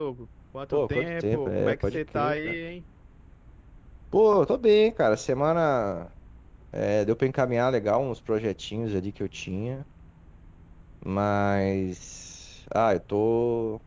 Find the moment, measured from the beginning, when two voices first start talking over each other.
1 s

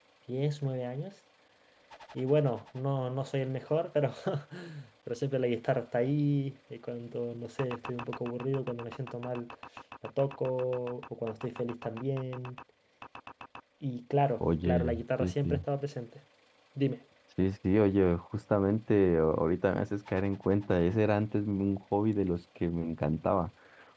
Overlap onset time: 14 s

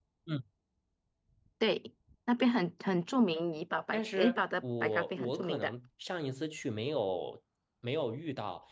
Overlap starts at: 4 s

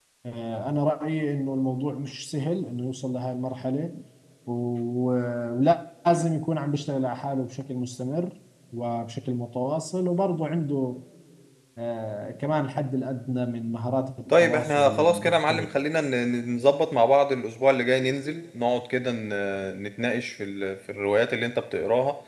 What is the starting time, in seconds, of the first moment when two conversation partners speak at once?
14 s

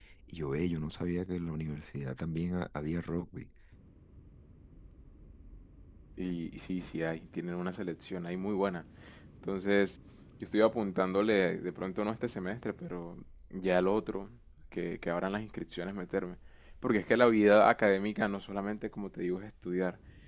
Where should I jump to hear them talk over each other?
none

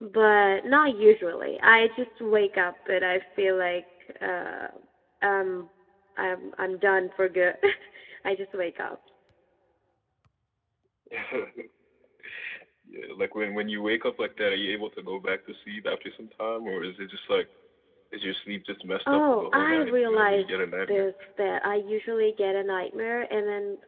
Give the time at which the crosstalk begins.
19 s

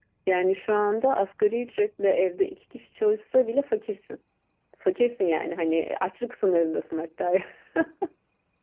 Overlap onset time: none

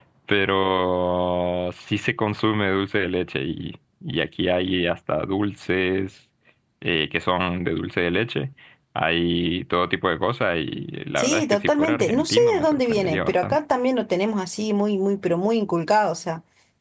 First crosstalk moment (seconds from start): 11 s

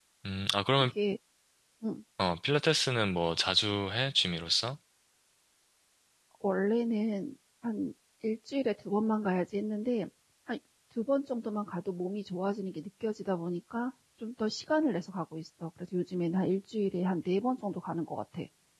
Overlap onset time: none

